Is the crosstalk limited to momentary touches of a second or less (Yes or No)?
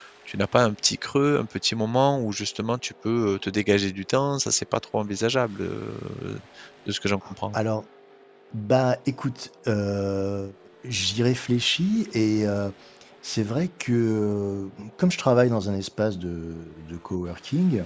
Yes